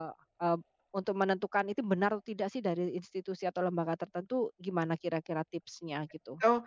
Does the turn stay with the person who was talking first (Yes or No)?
No